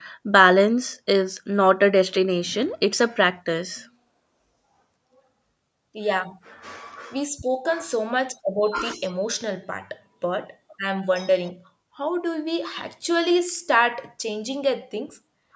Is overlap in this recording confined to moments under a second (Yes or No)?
Yes